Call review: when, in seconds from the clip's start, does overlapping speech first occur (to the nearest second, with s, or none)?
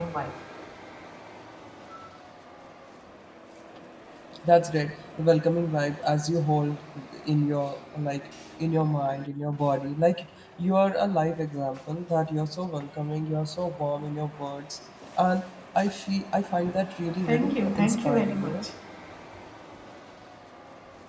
17 s